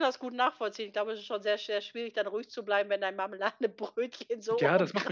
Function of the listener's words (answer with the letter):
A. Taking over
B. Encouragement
A